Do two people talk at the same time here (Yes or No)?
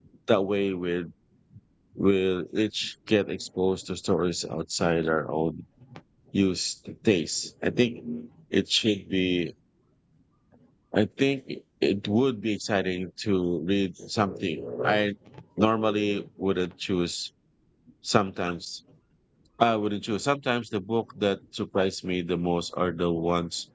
No